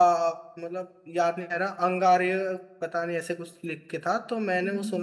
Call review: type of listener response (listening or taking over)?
taking over